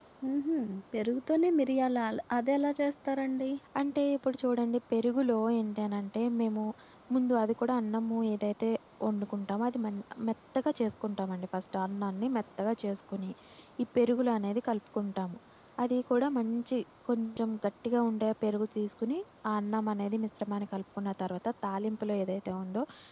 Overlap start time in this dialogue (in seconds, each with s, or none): none